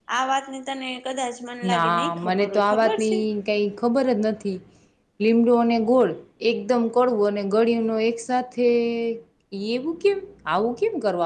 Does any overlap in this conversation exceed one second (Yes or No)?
Yes